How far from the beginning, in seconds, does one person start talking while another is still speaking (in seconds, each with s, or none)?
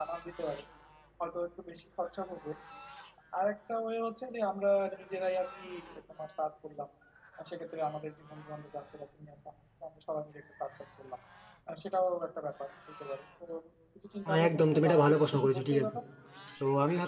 14.2 s